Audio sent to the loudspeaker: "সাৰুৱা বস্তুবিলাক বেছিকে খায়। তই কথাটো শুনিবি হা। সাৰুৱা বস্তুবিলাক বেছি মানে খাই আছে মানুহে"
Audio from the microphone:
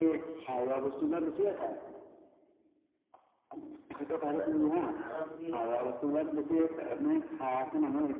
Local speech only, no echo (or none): এ মই কথা এটা ভাবি আছিলোঁ